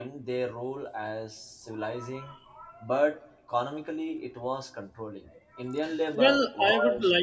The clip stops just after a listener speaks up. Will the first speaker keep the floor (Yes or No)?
No